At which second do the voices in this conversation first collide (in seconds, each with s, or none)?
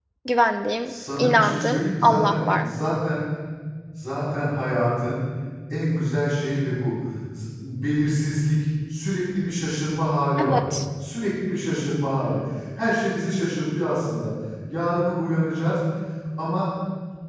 0.8 s